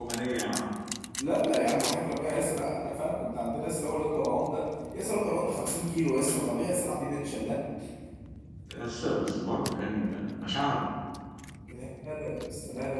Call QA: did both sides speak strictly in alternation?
Yes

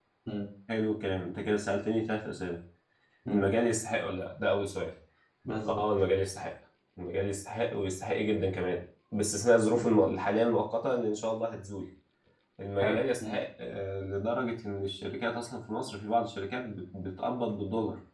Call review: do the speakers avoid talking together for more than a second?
Yes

